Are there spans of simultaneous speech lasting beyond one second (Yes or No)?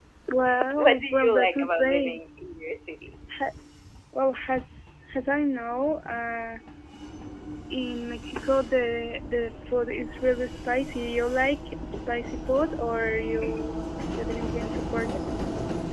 Yes